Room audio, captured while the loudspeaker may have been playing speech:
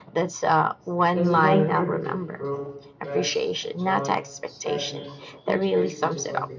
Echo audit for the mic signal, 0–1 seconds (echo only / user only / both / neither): echo only